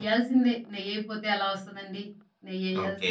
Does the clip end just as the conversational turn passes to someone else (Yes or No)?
Yes